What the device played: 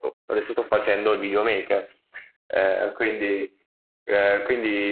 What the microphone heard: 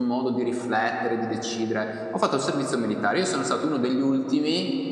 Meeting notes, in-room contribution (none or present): present